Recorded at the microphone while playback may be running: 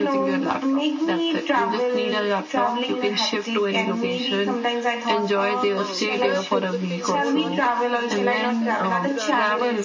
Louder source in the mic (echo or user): echo